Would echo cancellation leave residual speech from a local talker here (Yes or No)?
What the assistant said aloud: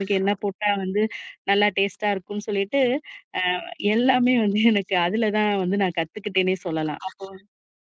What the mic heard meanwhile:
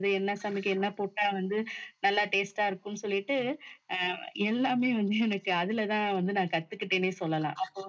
No